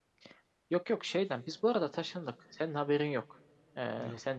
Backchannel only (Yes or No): Yes